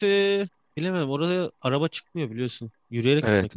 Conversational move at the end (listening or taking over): taking over